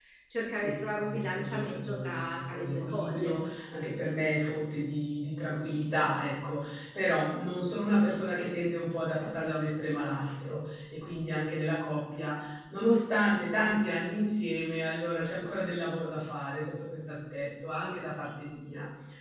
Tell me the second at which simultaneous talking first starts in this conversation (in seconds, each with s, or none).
0.5 s